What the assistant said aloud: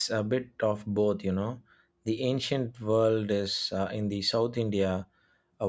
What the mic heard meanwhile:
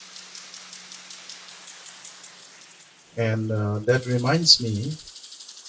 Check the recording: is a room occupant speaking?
Yes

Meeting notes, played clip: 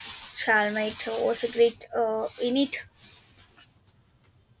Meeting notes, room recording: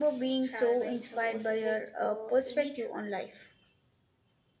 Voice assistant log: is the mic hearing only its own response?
No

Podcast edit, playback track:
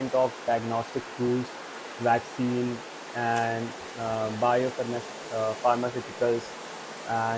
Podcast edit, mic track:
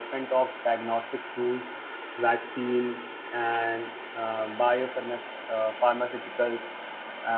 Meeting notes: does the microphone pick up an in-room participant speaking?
No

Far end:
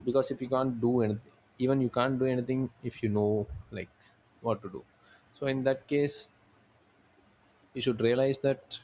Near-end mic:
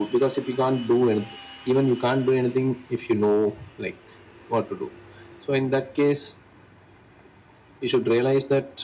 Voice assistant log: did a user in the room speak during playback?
No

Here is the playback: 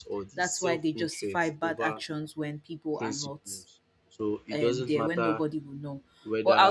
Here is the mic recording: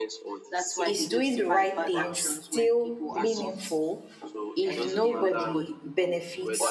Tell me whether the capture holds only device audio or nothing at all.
No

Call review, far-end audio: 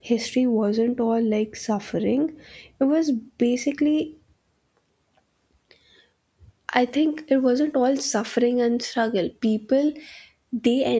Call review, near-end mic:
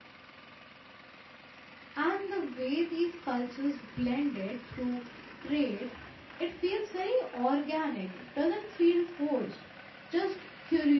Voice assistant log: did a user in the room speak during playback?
Yes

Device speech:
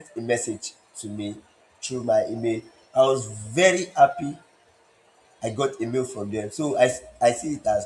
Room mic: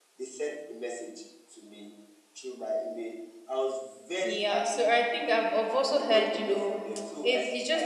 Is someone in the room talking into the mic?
Yes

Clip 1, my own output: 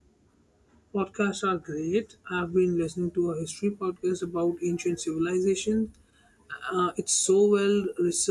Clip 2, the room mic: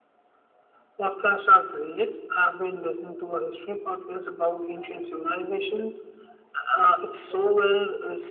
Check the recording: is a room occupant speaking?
No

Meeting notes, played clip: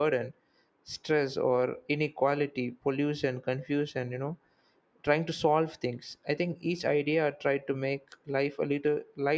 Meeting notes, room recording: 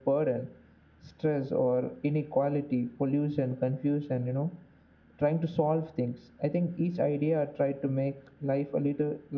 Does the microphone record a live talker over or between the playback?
No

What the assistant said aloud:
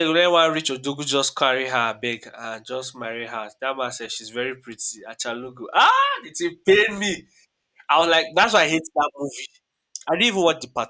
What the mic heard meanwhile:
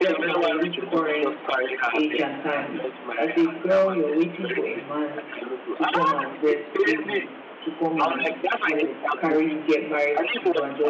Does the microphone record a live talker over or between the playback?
Yes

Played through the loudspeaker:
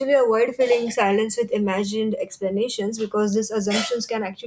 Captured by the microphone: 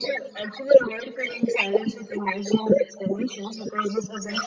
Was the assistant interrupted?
No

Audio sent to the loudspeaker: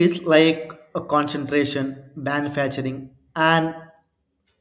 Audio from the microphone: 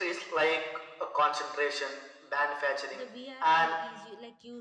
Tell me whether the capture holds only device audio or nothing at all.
No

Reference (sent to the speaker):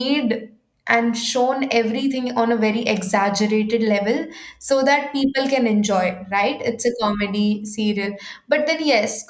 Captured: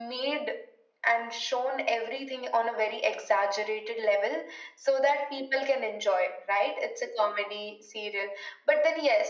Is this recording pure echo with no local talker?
Yes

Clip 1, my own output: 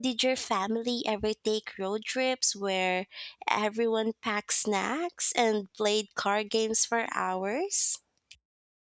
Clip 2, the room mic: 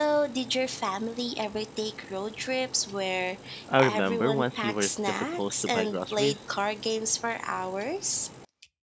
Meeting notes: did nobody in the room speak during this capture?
No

